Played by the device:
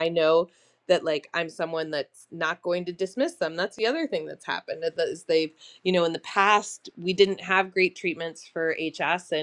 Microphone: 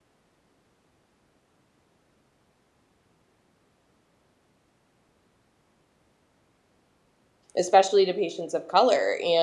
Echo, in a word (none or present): none